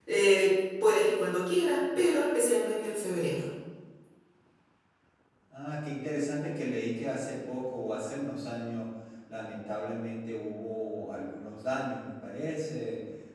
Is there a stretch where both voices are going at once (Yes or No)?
No